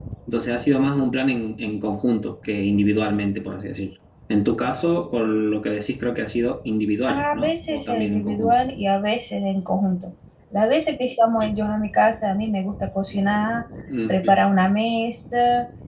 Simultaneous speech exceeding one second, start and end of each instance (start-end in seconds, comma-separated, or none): 7.1-8.6